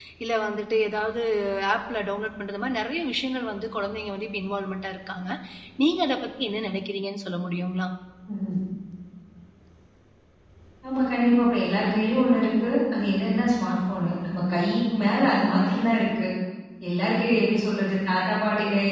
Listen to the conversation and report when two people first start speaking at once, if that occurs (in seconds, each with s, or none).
none